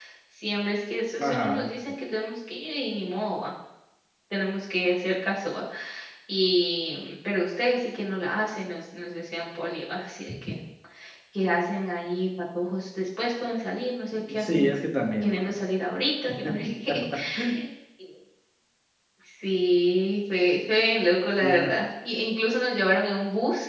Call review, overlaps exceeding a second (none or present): none